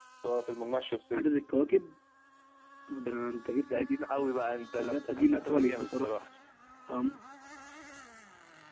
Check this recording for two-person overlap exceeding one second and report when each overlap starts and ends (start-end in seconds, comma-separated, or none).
4.8-6.1